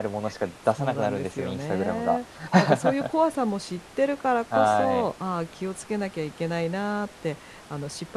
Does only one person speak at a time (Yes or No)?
No